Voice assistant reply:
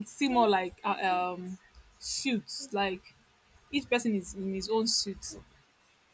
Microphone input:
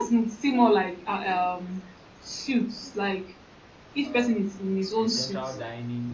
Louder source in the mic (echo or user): echo